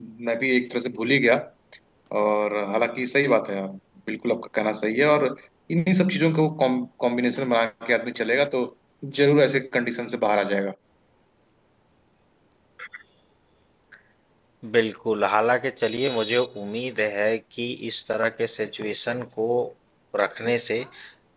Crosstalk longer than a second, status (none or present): none